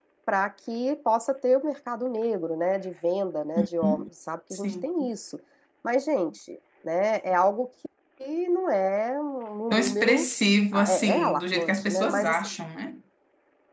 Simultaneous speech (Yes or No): Yes